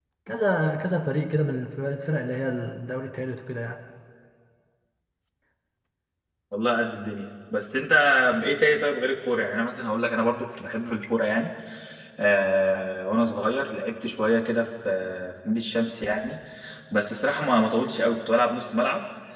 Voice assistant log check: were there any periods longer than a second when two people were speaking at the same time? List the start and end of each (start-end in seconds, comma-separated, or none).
none